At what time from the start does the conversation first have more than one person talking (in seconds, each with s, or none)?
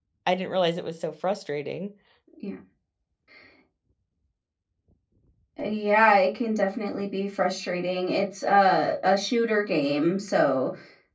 none